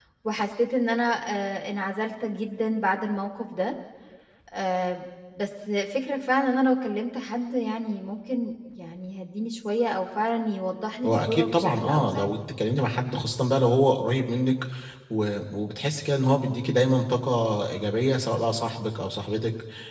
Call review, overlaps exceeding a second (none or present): present